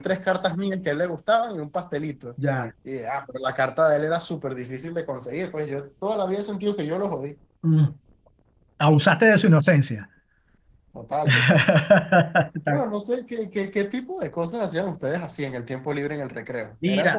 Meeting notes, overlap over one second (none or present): none